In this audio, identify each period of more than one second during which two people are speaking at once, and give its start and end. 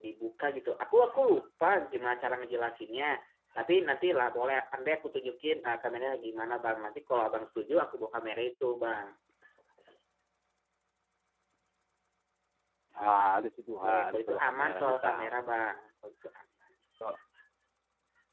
13.8-15.1

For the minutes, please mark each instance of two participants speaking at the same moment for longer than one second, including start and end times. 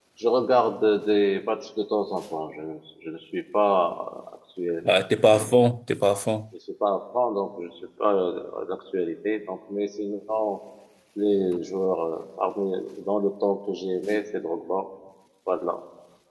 none

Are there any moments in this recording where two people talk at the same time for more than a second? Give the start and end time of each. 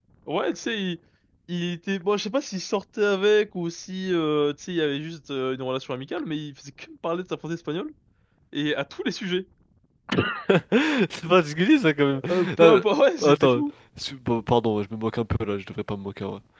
none

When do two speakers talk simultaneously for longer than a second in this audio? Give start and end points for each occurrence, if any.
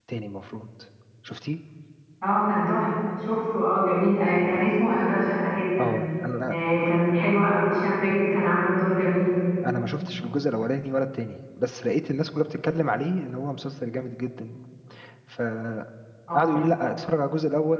none

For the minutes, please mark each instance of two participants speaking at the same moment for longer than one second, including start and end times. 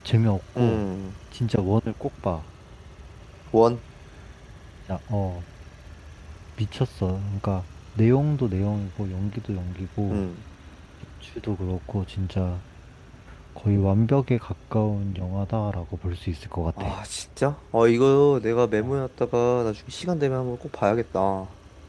none

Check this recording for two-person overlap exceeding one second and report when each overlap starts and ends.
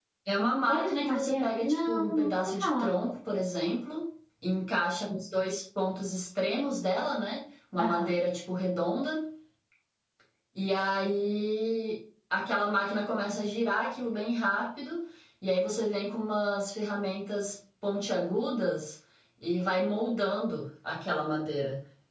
0.7-2.9

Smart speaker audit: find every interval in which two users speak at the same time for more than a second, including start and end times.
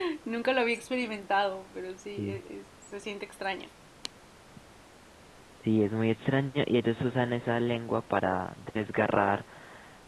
none

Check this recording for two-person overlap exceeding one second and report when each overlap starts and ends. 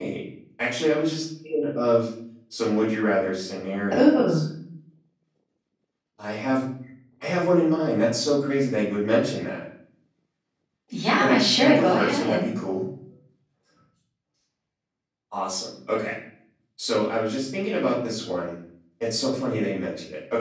11.2-12.5

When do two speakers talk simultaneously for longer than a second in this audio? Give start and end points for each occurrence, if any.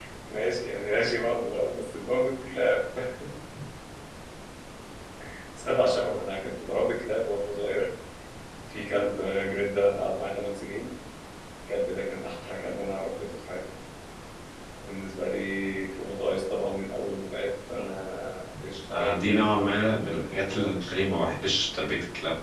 18.9-21.3

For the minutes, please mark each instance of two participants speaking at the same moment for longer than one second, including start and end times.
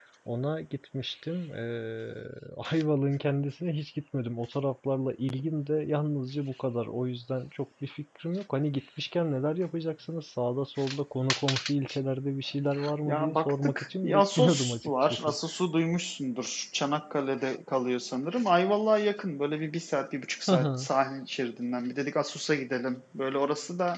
13.1-15.3

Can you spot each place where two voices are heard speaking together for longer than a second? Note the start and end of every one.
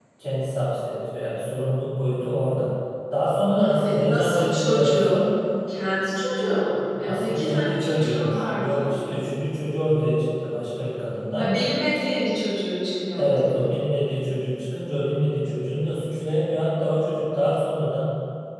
3.6-5.2, 7.0-9.0

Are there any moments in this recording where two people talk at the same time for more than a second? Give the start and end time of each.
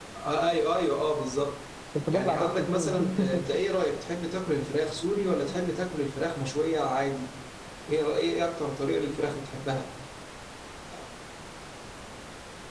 2.1-3.5

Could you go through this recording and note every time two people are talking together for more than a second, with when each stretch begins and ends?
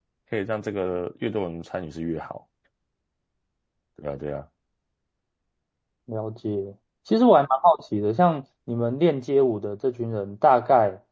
none

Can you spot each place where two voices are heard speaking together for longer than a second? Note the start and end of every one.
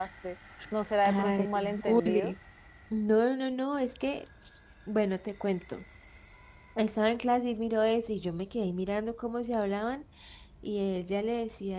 1.1-2.3

